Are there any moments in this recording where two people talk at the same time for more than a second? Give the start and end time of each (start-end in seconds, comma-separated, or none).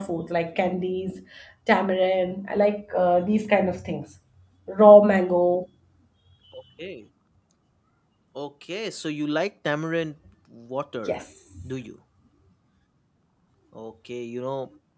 none